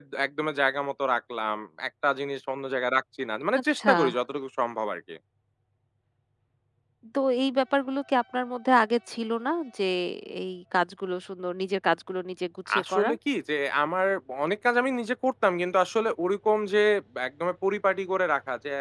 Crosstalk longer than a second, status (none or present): none